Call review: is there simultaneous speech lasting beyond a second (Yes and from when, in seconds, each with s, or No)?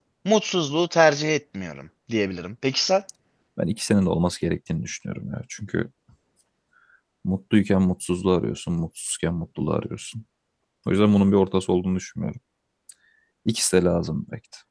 No